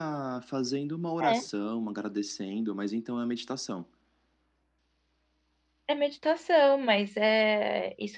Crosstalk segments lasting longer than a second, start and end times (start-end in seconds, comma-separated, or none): none